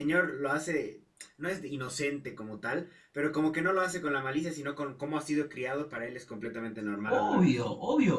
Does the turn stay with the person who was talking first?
No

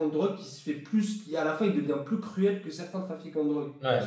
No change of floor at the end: No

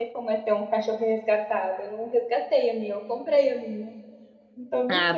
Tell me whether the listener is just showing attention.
No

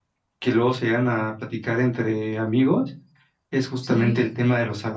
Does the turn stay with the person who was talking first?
Yes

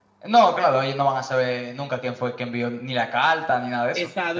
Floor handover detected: Yes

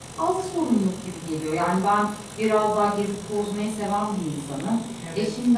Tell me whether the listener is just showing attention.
Yes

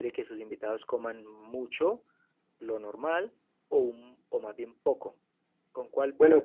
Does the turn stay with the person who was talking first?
No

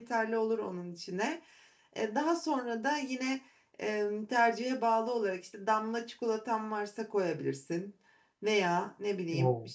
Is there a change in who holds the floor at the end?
No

